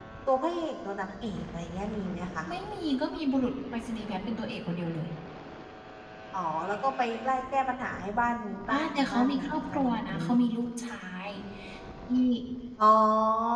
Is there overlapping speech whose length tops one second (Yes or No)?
Yes